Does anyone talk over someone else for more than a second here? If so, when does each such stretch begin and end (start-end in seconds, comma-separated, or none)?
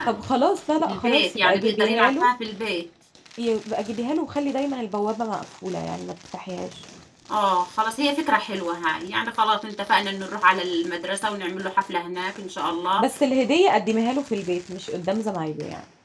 0.8-2.3